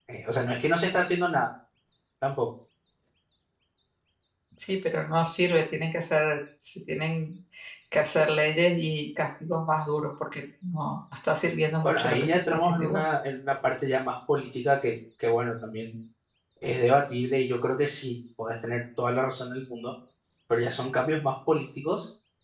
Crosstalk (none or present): present